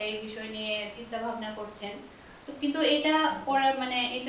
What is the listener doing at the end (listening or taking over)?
listening